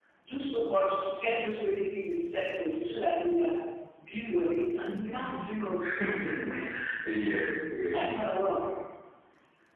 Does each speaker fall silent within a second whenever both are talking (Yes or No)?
Yes